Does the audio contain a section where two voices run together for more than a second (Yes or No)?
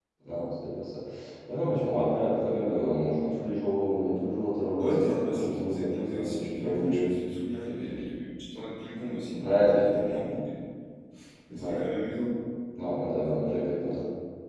Yes